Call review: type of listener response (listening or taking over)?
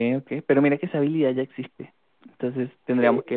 listening